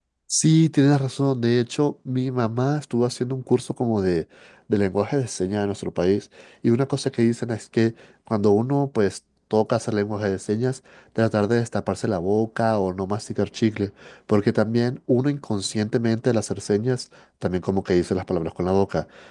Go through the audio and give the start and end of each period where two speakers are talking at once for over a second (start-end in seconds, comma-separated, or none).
none